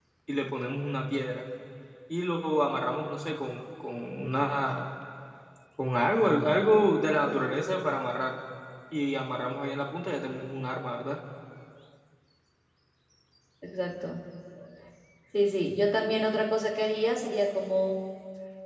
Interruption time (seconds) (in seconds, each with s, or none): none